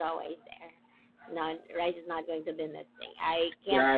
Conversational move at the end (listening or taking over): taking over